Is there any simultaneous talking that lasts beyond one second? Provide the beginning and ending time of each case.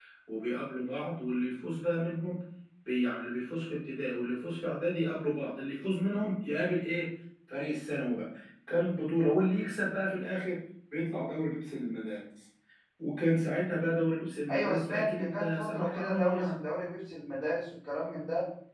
14.5-16.6

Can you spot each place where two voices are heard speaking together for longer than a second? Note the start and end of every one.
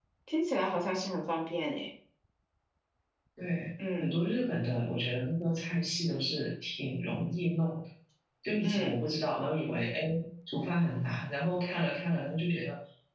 none

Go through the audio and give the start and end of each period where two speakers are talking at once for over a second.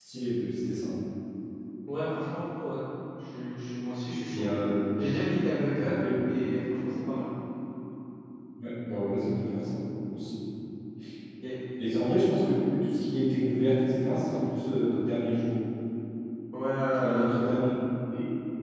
none

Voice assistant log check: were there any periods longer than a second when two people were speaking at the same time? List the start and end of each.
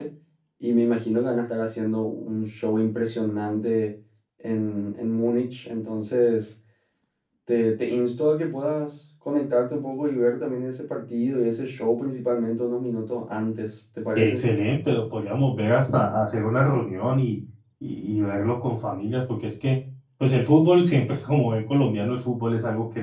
none

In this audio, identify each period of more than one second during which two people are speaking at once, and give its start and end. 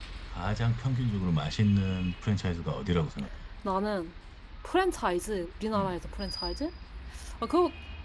none

